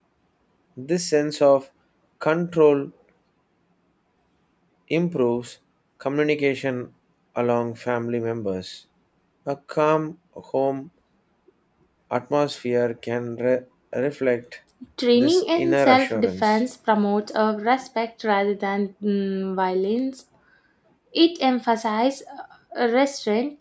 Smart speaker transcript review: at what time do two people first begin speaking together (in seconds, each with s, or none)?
15.2 s